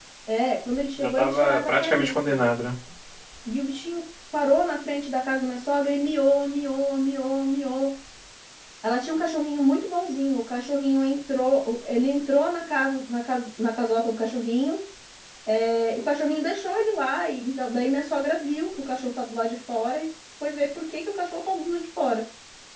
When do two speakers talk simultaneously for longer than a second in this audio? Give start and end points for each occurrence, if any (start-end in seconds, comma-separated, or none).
1.0-2.4